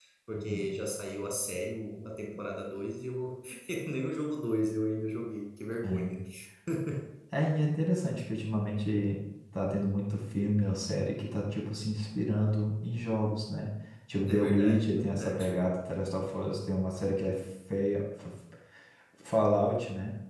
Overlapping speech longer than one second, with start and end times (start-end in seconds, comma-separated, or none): 14.3-15.5